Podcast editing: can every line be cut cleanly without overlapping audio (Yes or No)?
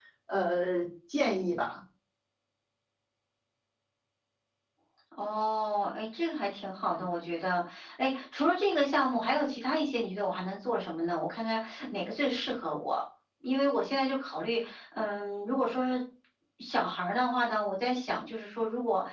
Yes